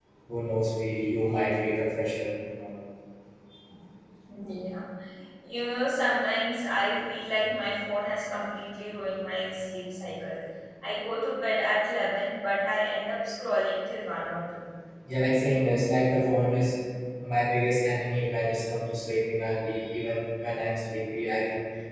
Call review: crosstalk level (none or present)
none